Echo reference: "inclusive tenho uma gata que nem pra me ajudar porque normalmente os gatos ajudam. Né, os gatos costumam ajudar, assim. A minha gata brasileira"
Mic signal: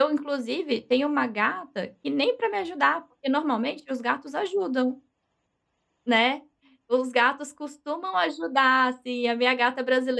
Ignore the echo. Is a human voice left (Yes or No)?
No